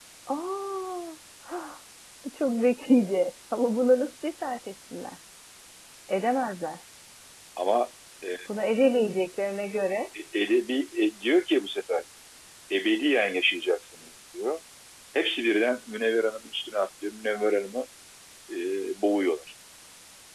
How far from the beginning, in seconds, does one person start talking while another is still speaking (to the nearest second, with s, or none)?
none